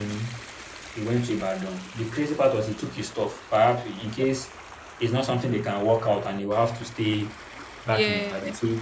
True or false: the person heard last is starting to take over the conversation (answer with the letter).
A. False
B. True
A